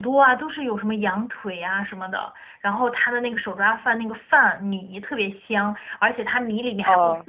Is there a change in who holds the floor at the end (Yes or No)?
No